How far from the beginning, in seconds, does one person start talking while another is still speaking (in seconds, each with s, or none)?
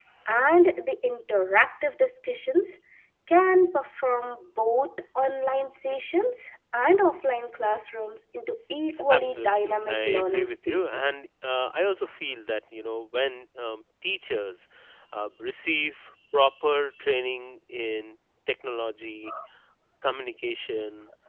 9.1 s